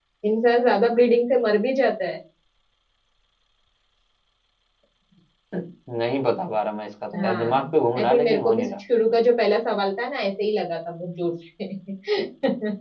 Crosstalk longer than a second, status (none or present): present